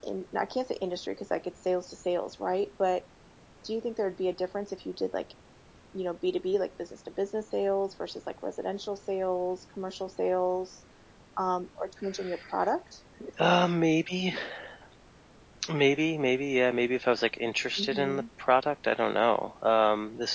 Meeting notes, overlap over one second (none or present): none